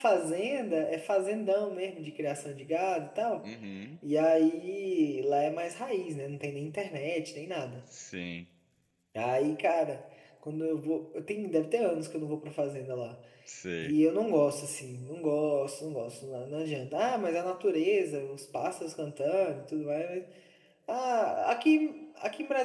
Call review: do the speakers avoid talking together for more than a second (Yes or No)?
Yes